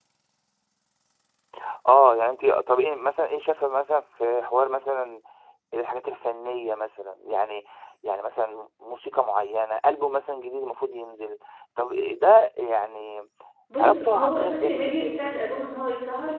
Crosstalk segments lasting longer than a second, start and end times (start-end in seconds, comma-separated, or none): 13.8-15.2